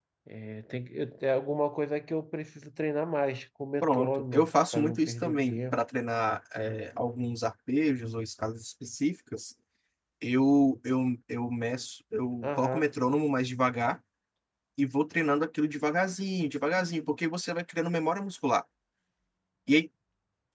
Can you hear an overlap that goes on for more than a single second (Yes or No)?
Yes